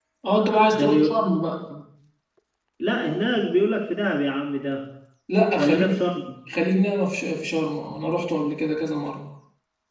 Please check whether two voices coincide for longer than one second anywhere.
No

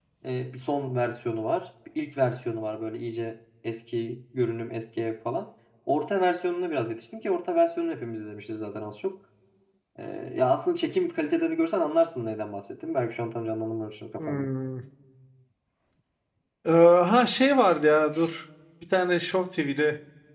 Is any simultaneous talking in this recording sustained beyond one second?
No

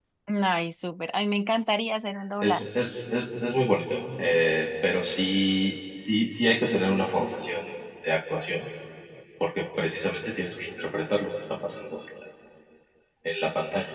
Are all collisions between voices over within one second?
Yes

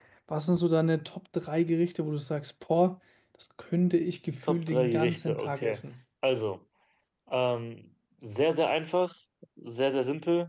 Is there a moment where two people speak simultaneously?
Yes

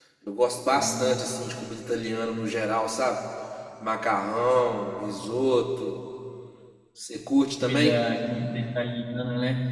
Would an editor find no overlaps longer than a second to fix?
Yes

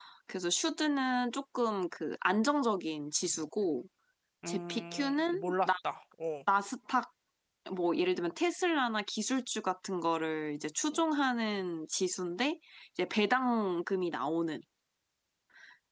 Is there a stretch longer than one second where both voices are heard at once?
Yes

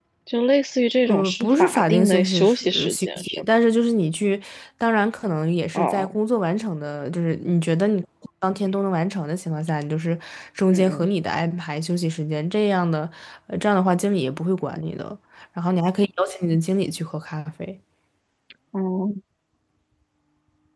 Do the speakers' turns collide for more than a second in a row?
Yes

